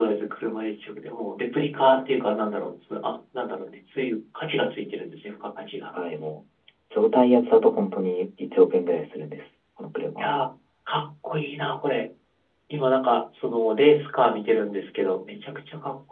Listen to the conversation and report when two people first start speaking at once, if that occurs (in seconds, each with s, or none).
none